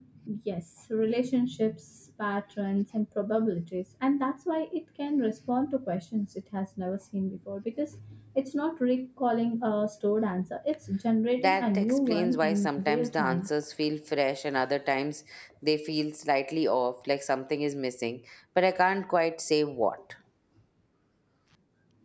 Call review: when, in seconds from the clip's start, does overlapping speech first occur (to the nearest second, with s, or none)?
11 s